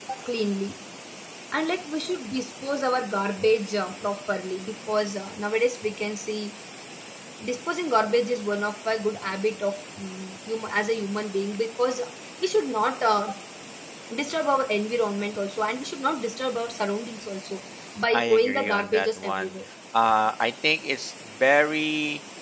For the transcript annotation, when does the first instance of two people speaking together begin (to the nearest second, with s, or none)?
18 s